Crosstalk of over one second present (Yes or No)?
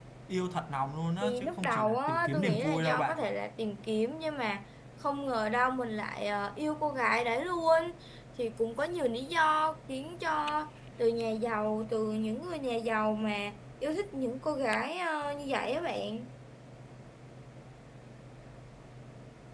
Yes